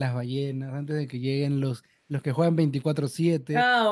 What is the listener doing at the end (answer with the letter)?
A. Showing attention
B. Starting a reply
B